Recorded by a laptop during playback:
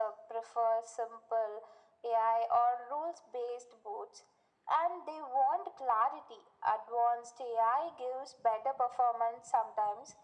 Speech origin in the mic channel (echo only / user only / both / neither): echo only